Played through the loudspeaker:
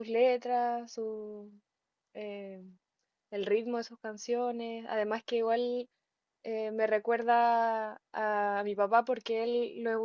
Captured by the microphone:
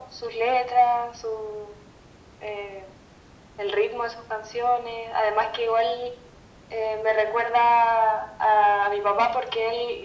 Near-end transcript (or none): none